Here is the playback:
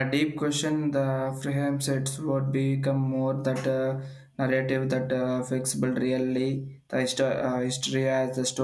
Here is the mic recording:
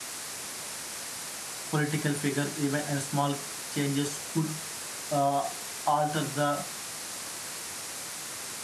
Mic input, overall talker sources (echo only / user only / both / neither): user only